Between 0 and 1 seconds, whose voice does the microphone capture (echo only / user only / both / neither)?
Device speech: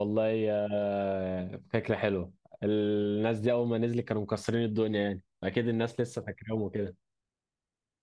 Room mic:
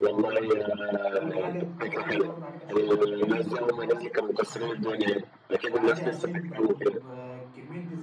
both